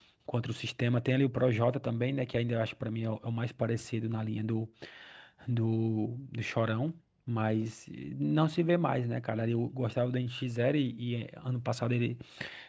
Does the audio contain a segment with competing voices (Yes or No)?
No